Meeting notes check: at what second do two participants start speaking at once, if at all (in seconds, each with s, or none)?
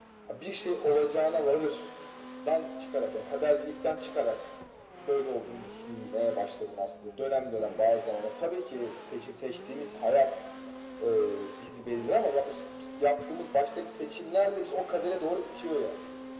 none